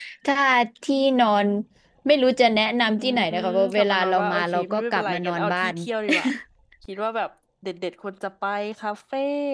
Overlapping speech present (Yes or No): Yes